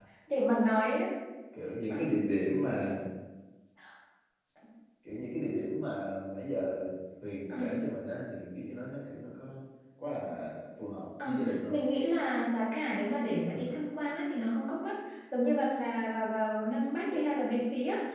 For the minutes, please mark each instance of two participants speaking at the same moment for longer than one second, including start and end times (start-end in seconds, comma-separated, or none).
none